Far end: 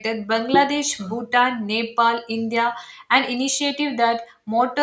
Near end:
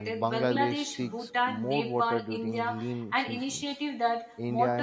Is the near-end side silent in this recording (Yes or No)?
No